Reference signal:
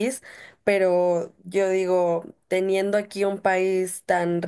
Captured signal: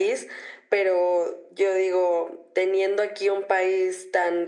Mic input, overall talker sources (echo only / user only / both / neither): echo only